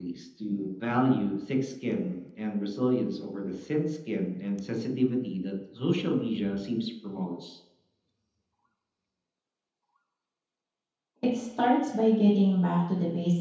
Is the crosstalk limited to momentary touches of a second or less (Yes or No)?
Yes